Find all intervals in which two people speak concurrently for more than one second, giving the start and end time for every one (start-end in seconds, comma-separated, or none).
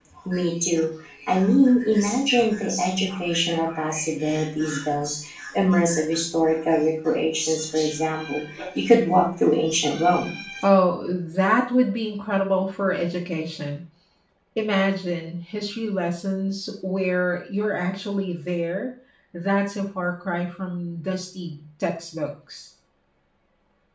none